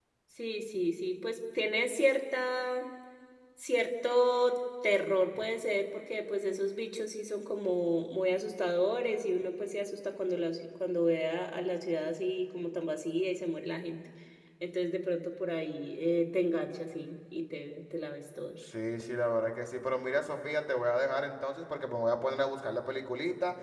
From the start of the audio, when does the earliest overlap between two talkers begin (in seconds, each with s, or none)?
none